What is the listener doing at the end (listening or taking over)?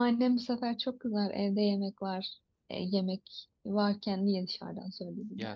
taking over